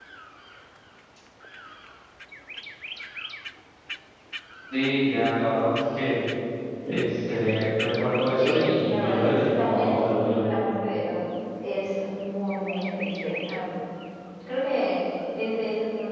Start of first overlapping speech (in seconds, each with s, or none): 8.4 s